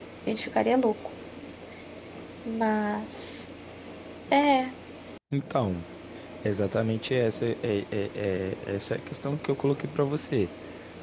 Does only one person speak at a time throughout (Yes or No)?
Yes